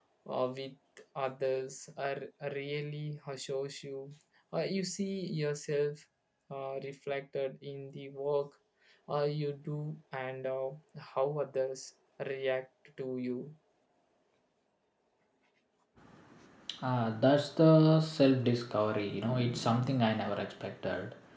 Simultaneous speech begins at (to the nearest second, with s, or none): none